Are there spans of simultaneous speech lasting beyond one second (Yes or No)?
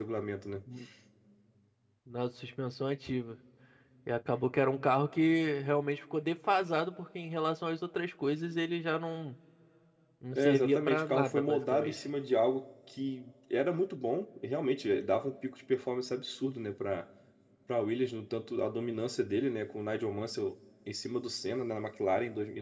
Yes